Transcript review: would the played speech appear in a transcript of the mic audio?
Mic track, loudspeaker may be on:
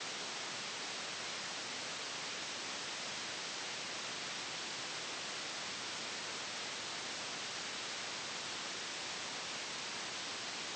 No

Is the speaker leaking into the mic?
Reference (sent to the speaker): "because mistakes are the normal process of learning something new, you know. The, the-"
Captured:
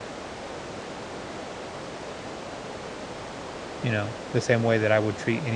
No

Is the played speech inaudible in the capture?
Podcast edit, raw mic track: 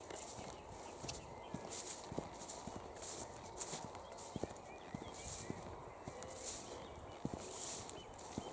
Yes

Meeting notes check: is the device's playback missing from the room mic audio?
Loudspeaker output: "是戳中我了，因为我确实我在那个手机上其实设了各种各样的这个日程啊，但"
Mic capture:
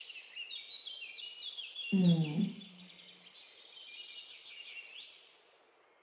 Yes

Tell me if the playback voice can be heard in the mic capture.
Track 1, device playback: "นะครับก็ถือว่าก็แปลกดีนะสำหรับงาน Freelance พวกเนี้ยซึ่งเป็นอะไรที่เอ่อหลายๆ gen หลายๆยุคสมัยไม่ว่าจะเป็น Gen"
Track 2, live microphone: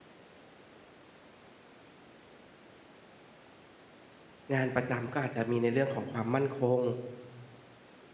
No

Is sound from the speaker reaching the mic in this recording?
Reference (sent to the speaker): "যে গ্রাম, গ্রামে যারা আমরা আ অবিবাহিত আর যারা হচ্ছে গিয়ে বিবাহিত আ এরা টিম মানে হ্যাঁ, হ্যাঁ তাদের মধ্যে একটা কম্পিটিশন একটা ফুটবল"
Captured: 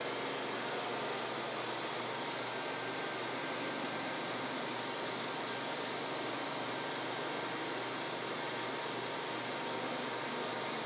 No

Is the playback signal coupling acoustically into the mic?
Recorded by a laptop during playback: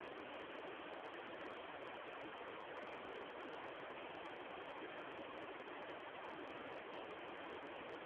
No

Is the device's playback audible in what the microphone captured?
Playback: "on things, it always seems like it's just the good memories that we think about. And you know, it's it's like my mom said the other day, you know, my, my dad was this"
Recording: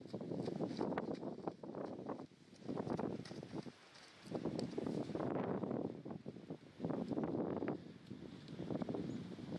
No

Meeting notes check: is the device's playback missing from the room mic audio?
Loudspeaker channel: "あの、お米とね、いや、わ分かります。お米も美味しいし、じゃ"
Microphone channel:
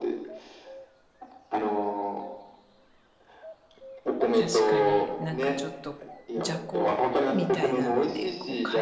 No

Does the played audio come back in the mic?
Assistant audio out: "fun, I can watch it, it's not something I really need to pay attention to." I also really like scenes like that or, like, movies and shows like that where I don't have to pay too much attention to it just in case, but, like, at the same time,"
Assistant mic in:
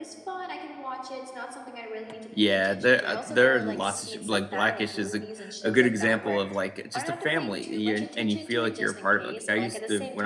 Yes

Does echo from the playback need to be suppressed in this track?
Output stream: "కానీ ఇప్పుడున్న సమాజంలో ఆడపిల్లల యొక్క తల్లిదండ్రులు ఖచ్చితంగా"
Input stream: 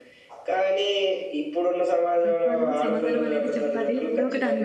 Yes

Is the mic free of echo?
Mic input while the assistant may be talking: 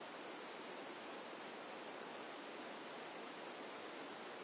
Yes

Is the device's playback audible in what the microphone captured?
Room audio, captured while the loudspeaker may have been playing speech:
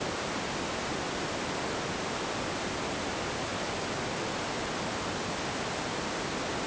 No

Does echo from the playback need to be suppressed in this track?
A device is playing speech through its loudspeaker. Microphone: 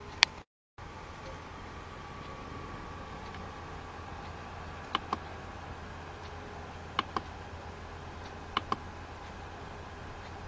No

